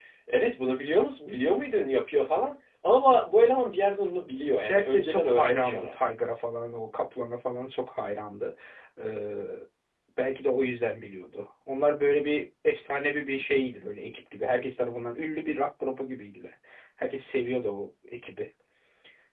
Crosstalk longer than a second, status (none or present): present